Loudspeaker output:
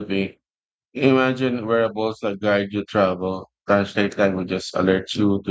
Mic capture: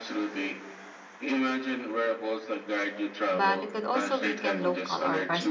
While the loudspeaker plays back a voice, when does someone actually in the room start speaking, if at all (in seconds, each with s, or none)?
3.3 s